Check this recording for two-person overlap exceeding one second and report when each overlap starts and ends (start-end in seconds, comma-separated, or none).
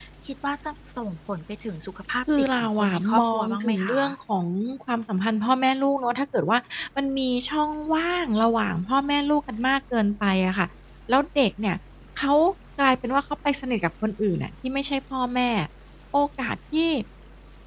2.4-4.2